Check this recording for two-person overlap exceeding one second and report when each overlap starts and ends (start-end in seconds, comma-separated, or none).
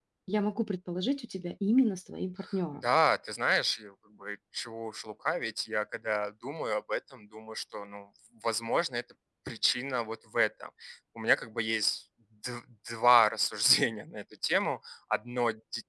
none